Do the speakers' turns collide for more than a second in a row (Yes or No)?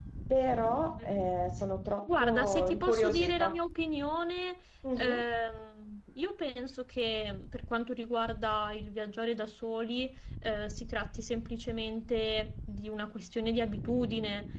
Yes